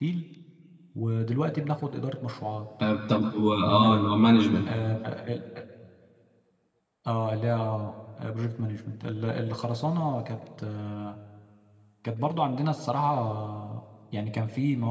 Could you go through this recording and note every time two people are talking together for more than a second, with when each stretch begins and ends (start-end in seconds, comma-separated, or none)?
none